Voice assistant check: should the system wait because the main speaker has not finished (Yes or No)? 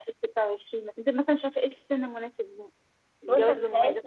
No